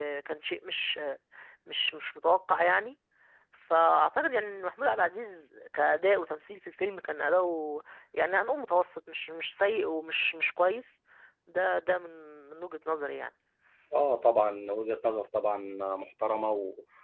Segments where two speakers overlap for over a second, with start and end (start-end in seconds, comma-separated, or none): none